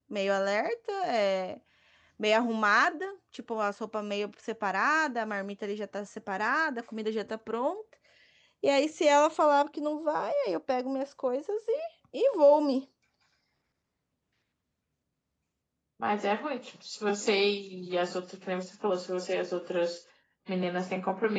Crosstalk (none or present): none